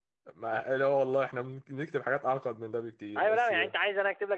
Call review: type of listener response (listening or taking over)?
taking over